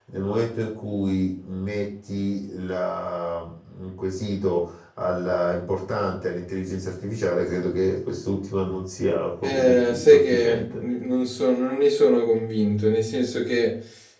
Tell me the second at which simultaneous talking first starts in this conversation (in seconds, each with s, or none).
9.4 s